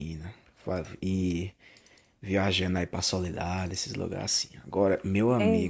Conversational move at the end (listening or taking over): listening